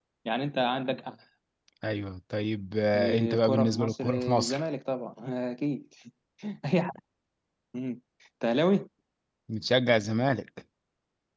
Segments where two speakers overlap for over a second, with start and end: 3.0-4.6

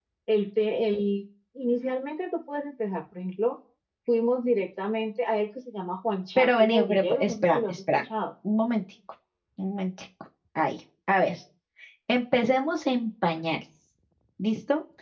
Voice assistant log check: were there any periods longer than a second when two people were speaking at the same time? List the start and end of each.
6.4-8.0

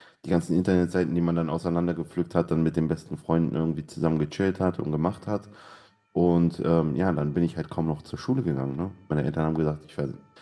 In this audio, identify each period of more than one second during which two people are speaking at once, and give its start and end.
none

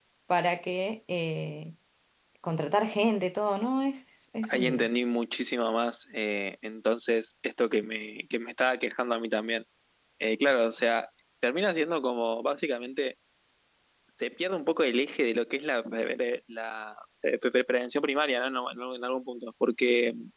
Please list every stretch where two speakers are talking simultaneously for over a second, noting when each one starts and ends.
none

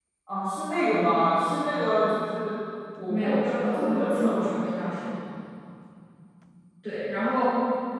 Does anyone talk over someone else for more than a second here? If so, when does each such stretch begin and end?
3.1-5.1

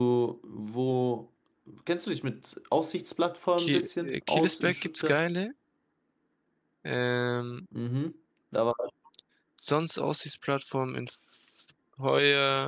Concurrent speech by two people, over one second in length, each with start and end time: 3.6-5.2

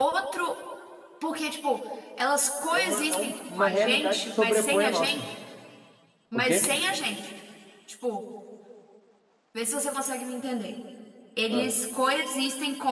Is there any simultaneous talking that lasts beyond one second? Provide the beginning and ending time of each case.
2.7-5.2

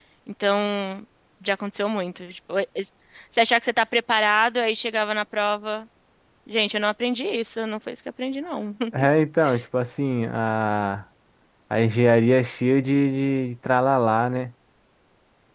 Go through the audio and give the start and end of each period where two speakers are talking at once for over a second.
none

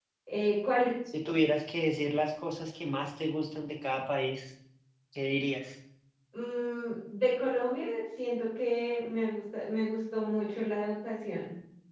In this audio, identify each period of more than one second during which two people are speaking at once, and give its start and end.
none

